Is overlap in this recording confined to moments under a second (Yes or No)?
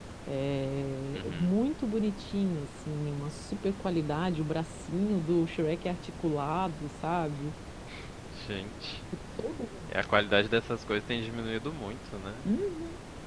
Yes